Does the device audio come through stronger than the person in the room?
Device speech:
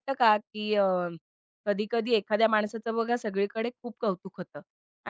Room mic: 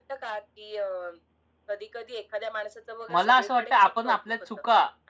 No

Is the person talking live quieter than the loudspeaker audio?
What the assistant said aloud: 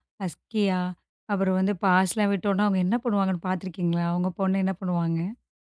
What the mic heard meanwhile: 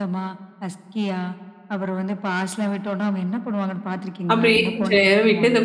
No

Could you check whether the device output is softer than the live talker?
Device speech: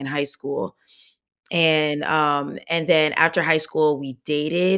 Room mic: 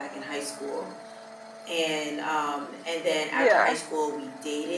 Yes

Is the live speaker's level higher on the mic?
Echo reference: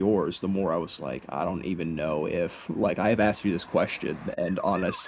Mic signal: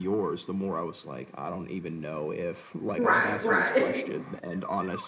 Yes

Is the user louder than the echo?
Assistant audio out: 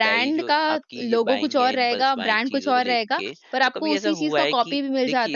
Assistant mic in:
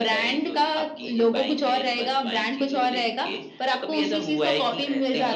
No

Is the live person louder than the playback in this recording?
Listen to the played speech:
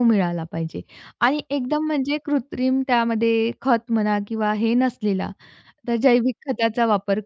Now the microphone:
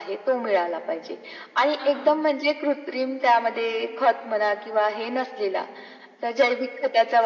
No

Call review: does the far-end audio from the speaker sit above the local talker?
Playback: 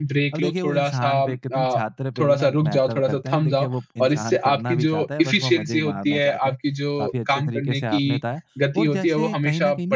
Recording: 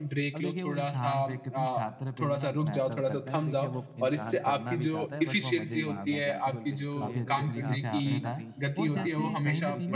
Yes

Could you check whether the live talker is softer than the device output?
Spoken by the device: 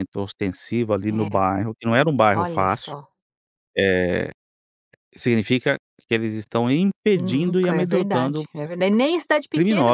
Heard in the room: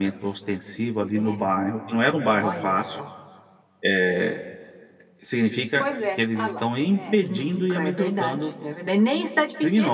Yes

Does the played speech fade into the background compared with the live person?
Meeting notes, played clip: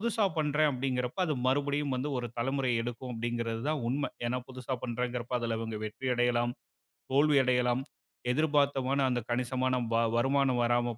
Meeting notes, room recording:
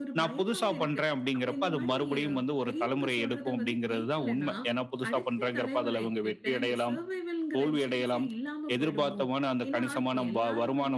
No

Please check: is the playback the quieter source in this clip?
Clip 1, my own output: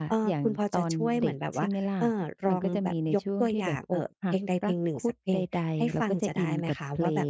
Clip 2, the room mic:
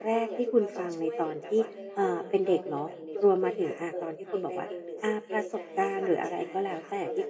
Yes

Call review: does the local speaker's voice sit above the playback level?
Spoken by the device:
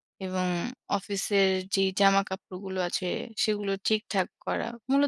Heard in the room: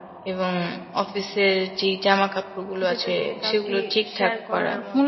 No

